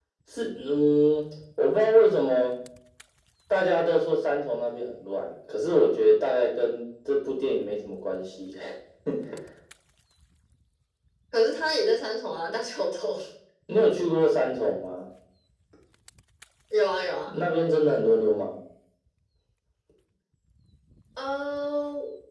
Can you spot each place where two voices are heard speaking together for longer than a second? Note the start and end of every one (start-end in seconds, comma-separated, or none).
none